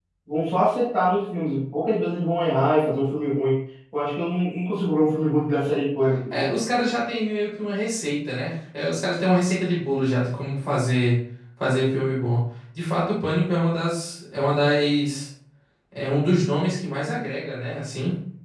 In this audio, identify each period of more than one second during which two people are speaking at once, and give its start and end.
none

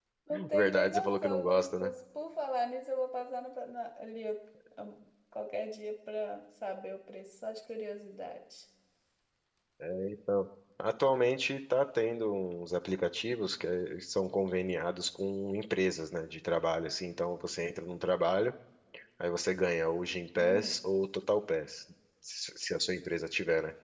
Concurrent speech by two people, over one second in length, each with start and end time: 0.5-1.9

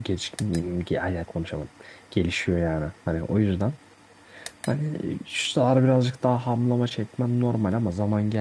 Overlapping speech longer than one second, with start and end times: none

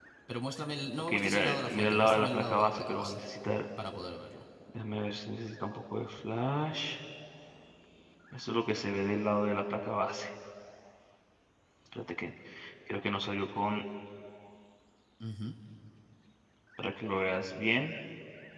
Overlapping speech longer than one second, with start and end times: 1.0-3.2

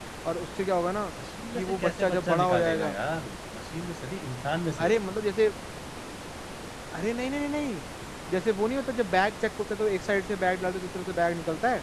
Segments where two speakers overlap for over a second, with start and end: 1.6-2.9

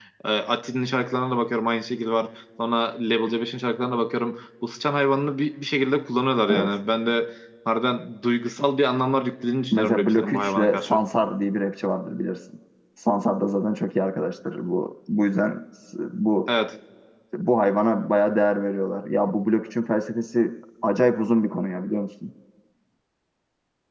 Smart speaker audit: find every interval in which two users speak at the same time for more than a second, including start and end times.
9.7-11.0

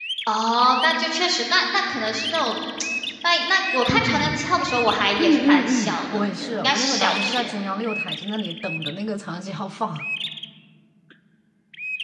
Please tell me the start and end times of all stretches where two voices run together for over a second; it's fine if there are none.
5.2-7.5

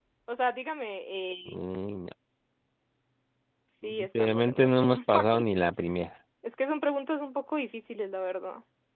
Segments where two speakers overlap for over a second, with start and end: 3.8-5.4

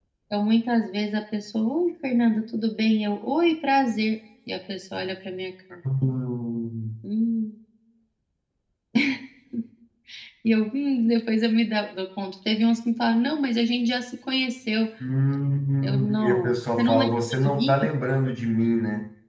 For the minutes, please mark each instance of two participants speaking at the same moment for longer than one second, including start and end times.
15.8-17.7

